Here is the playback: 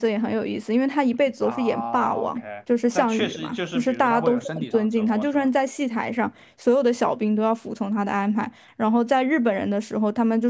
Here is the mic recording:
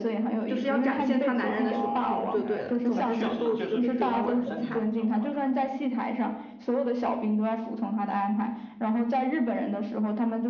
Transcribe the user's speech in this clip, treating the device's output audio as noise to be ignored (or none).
就是要展现他男人的雄风就对了。总之，小豆子就被折磨得很惨。